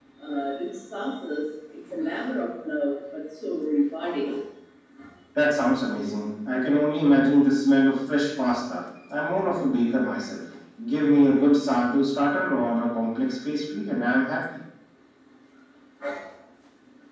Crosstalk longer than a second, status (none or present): none